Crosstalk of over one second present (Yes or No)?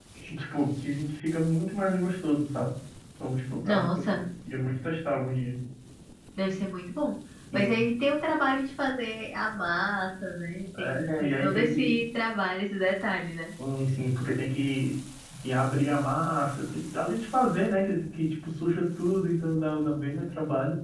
Yes